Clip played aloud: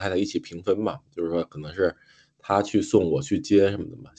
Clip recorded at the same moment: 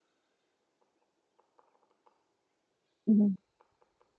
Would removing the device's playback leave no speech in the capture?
No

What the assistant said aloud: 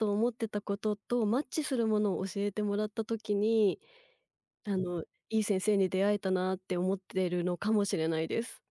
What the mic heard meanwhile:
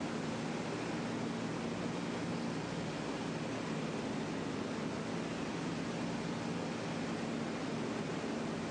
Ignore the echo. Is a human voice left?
No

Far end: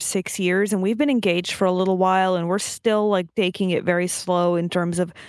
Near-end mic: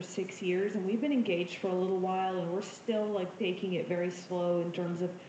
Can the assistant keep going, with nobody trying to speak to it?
Yes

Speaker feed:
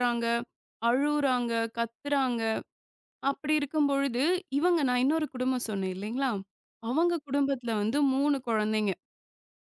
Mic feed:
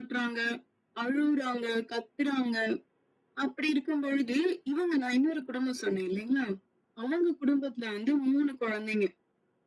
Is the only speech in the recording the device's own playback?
Yes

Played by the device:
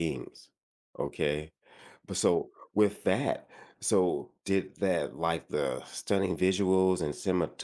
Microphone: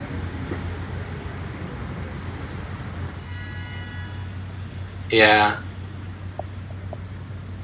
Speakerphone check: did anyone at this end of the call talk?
Yes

